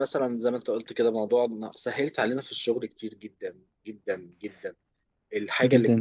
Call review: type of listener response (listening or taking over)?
listening